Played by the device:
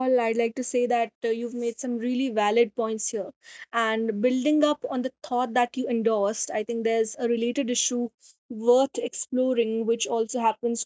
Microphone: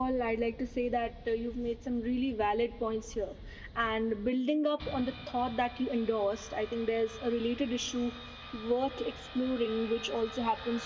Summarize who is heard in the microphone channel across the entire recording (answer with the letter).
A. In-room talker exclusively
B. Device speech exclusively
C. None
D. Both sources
B